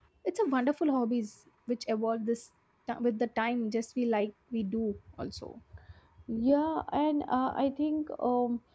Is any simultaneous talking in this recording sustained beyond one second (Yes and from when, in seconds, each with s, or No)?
No